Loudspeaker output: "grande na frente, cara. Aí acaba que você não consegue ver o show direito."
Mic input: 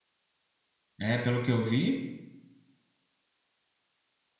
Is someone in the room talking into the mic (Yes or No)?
Yes